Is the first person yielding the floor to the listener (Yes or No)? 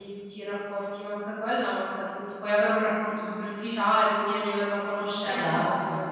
Yes